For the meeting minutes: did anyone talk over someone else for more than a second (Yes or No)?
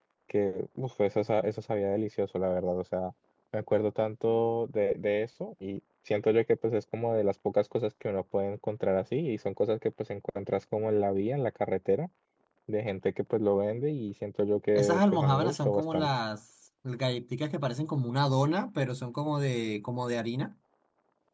Yes